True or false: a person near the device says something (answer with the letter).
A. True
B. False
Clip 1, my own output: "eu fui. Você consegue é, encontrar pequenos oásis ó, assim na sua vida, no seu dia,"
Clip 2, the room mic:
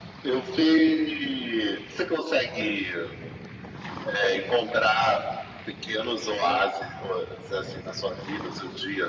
B